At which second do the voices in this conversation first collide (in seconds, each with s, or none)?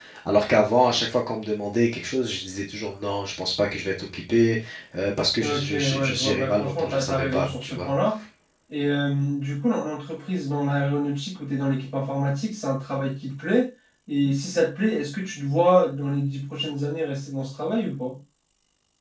5.4 s